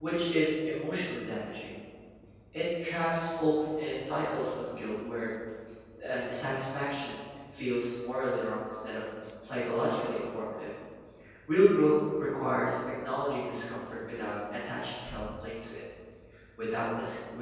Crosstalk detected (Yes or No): No